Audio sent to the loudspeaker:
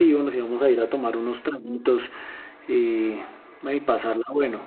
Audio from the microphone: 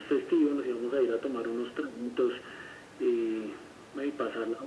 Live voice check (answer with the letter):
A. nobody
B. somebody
A